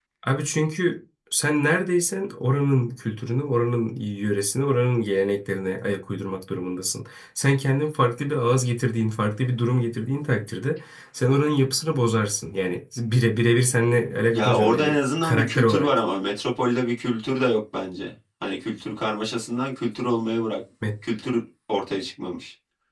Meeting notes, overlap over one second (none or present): present